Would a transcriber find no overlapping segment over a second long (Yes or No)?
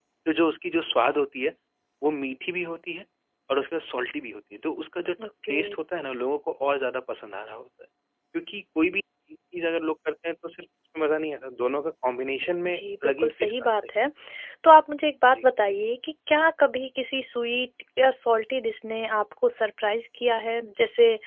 No